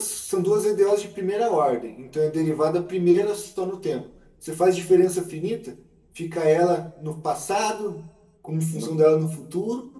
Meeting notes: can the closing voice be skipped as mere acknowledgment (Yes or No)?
Yes